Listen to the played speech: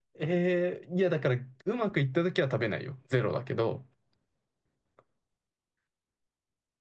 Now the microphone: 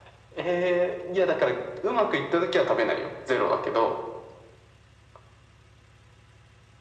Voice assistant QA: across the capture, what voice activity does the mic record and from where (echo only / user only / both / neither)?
echo only